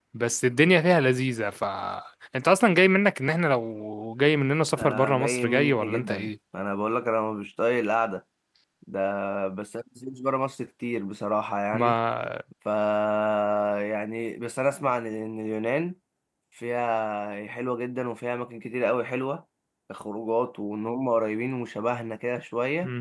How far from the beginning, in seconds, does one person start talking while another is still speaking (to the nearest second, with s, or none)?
5 s